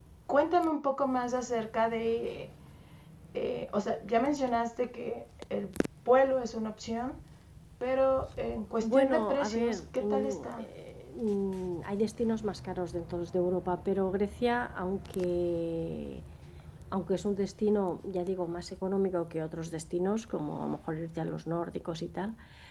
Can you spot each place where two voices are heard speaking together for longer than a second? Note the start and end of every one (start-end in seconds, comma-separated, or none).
8.8-10.7